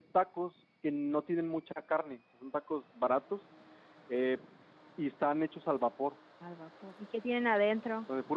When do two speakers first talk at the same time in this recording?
none

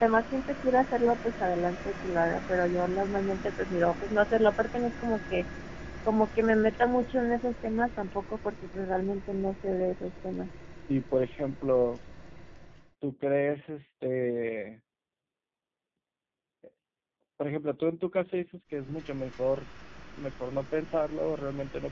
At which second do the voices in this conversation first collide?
none

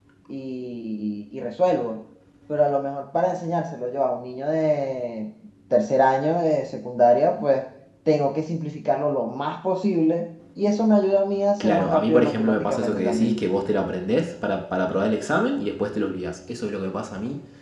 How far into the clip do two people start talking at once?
12 s

